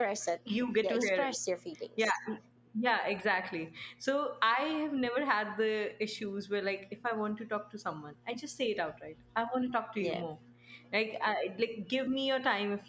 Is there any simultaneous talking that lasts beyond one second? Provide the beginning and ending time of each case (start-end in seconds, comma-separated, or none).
none